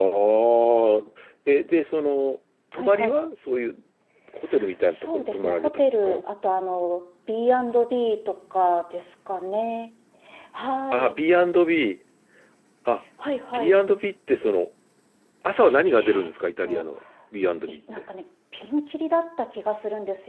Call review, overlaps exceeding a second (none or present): present